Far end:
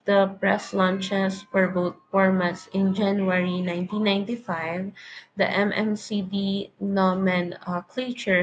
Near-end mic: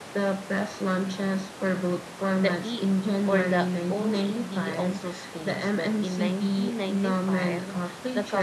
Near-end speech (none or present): present